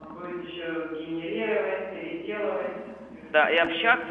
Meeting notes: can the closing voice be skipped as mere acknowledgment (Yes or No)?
No